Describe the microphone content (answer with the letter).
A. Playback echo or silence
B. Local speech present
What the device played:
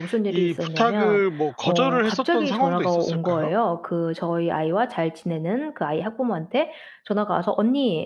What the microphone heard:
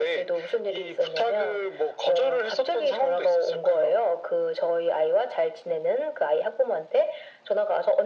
A